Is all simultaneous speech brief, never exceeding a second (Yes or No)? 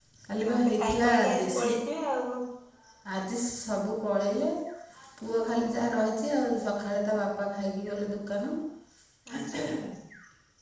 No